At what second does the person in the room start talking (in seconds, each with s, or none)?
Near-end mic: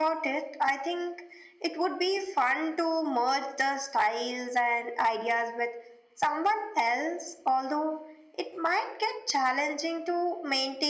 none